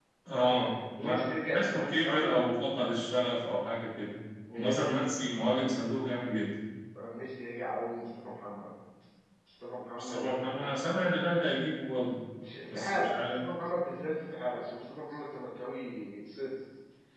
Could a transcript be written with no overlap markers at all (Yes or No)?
No